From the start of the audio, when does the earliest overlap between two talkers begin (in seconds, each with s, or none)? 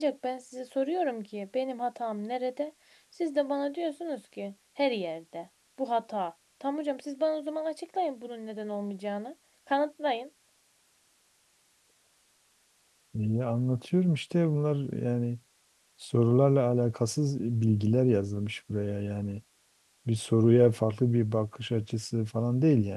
none